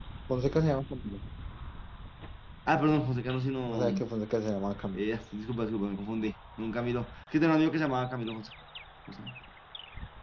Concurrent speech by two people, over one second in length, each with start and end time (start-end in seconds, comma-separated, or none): none